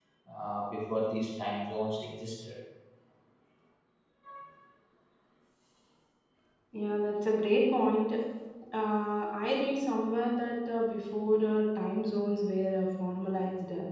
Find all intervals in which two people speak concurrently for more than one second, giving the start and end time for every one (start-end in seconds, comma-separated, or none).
none